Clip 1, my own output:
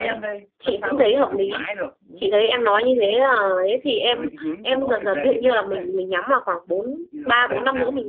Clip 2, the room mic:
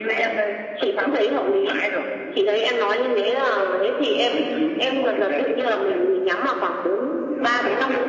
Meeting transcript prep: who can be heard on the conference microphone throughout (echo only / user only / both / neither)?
echo only